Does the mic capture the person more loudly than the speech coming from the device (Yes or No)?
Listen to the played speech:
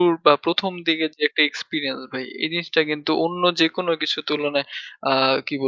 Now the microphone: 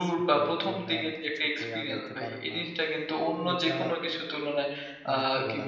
No